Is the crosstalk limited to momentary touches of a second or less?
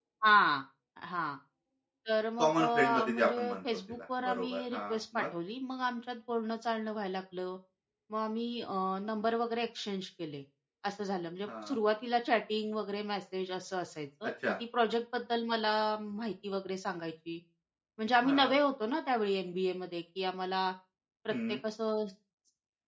No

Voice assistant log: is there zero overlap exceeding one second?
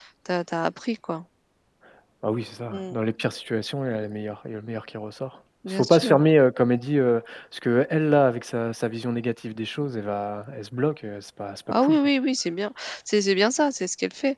Yes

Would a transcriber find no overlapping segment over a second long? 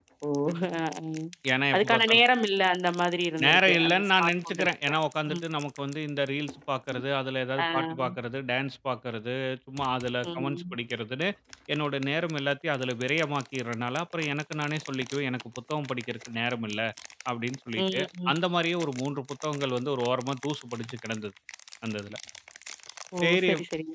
No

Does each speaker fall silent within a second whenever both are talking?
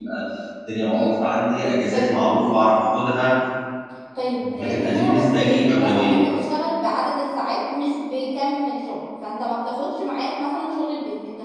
No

